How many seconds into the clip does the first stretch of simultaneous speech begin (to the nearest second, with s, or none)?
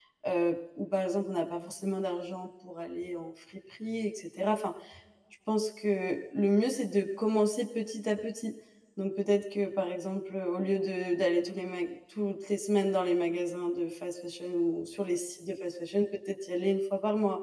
none